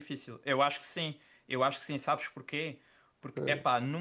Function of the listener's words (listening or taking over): listening